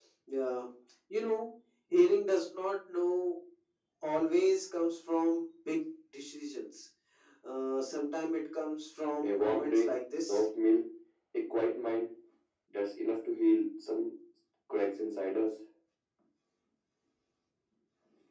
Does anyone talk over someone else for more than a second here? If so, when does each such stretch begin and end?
9.2-10.4

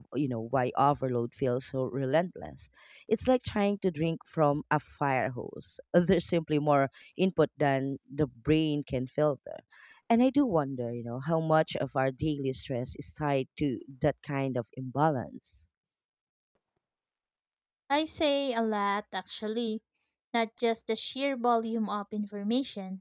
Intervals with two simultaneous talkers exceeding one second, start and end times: none

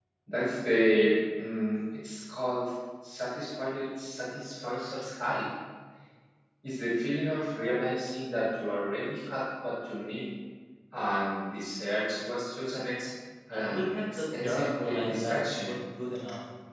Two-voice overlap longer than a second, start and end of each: 13.5-15.8

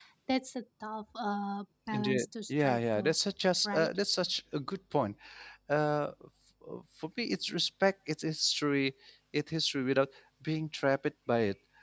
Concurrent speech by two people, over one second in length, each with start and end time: 1.9-3.1

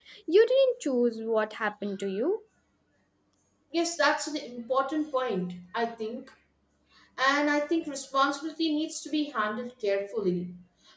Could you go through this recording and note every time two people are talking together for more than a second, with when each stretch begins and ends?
none

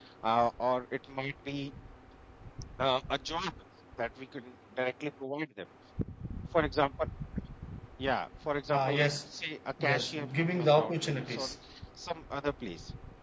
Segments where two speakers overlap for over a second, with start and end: 9.9-11.5

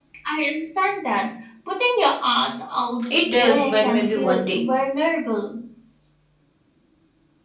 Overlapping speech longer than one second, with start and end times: 3.1-4.6

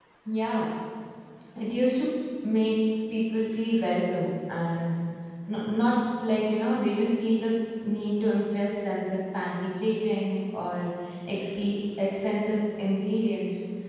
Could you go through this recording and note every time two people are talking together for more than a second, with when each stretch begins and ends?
none

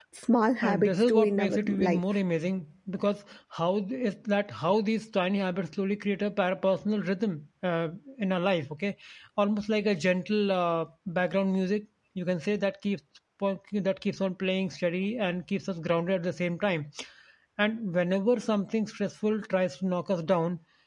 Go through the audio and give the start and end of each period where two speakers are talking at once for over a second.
0.6-2.0

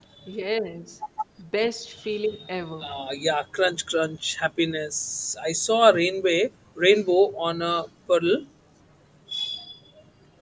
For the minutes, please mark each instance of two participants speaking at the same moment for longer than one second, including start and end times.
none

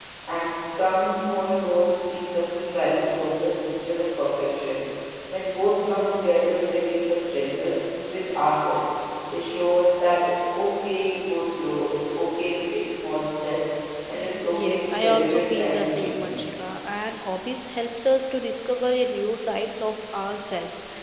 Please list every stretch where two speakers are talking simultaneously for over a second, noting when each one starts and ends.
14.5-16.5

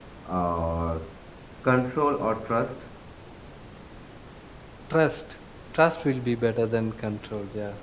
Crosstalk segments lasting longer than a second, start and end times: none

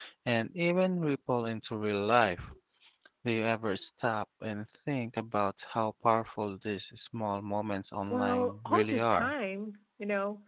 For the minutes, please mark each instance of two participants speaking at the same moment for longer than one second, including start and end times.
8.1-9.3

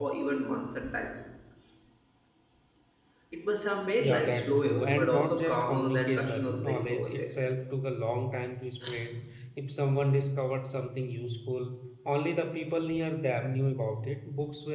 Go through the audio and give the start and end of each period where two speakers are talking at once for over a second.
4.0-7.3

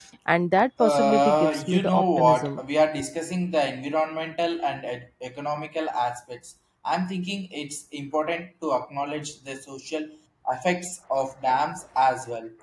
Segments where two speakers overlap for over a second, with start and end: 0.8-2.6

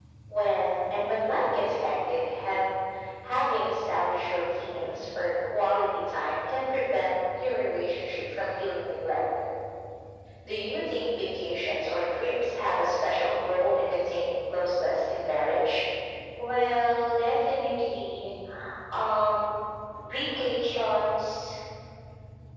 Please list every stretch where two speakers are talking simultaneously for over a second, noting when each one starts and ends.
none

